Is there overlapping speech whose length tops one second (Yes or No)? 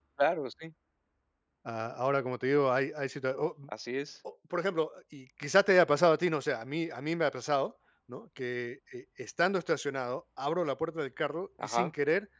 No